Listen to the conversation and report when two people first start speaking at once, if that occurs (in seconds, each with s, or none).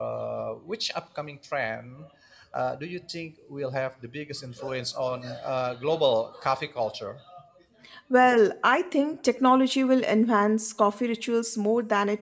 none